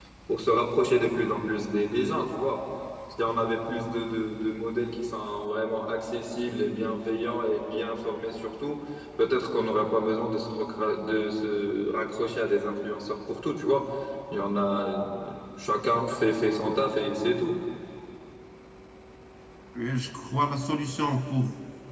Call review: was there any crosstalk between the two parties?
No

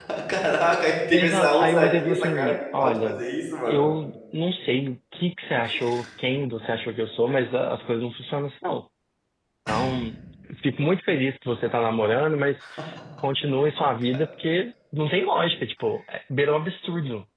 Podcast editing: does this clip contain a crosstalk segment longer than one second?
Yes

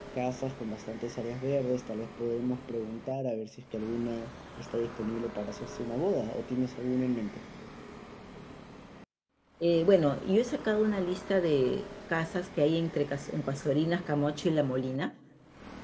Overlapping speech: No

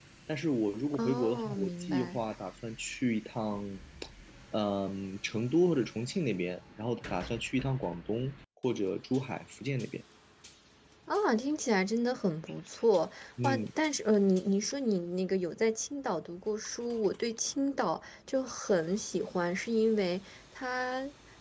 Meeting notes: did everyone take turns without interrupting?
No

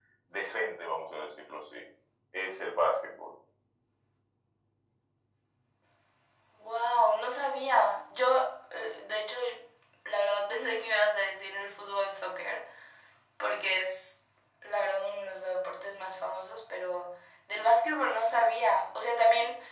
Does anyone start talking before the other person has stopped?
No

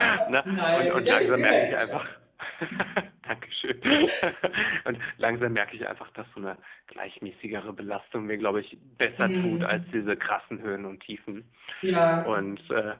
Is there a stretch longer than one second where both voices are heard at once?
Yes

